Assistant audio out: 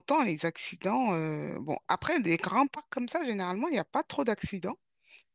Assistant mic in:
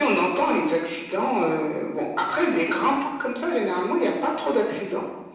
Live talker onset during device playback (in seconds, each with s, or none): none